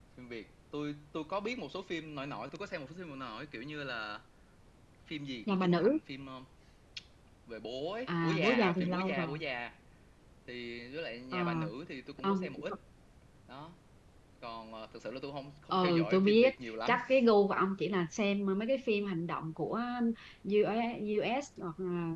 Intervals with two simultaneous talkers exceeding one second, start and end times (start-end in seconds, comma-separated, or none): 8.1-9.4, 15.7-17.0